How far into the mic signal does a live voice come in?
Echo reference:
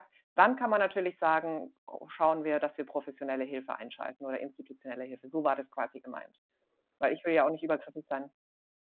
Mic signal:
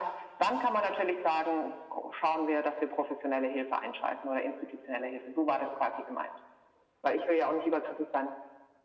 none

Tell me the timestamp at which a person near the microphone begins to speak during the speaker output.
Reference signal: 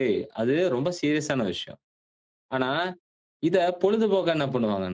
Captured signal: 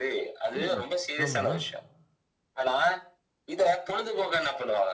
0.6 s

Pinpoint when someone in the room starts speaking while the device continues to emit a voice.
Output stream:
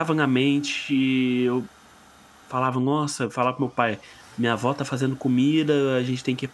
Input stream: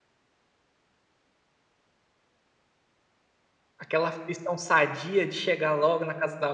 3.8 s

